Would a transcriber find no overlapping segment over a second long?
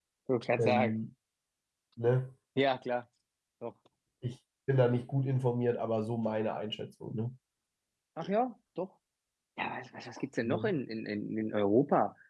Yes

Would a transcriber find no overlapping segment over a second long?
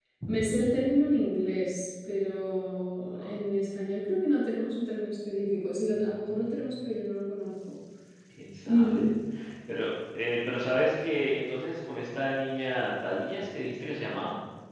Yes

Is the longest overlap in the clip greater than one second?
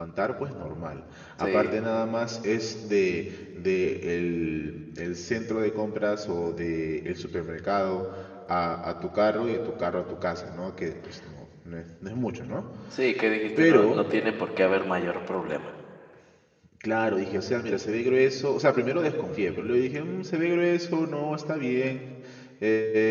No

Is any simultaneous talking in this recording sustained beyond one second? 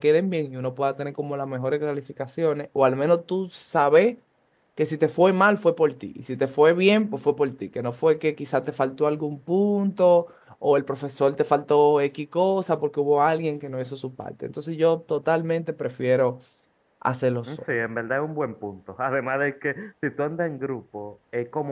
No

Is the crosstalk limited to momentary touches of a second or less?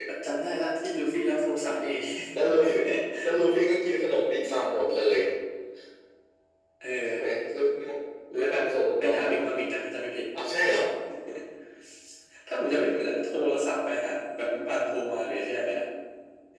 Yes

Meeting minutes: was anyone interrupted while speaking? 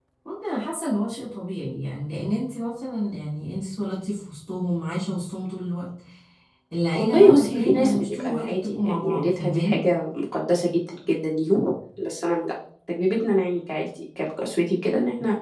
Yes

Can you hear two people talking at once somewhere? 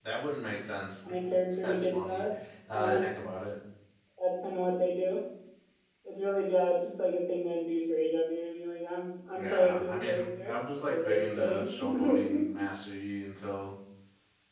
Yes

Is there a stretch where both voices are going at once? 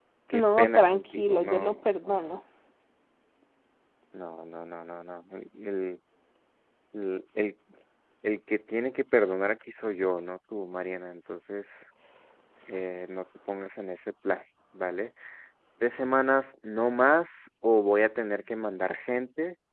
Yes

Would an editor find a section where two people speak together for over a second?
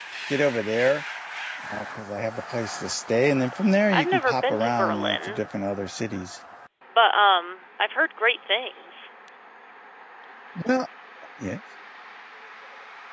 Yes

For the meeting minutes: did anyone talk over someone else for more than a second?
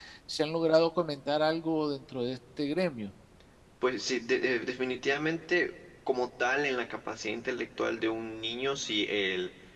No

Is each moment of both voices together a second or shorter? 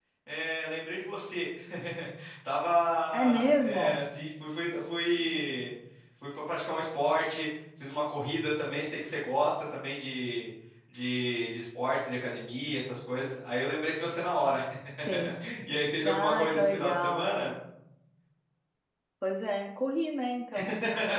No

